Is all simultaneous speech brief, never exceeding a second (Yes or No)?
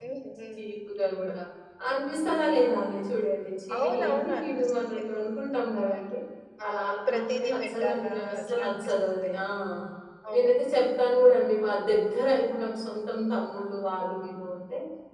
No